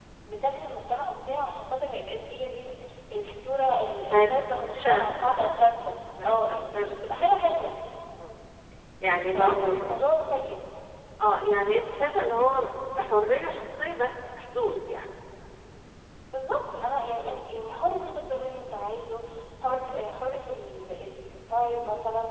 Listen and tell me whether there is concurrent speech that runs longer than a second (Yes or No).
Yes